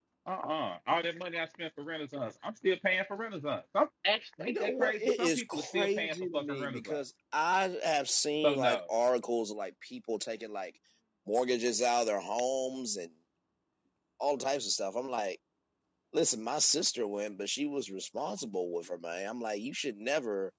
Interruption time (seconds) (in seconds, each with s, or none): 4.4 s